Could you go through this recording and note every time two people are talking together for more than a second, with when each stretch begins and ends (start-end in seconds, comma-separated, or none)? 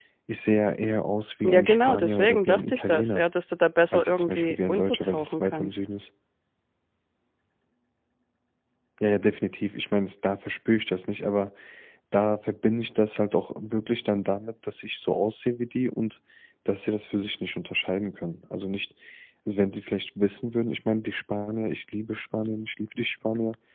1.4-3.2, 3.9-5.8